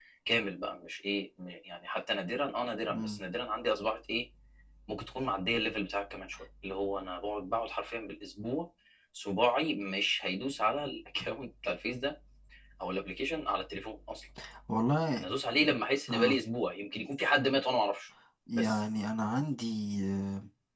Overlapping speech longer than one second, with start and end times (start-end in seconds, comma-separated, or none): none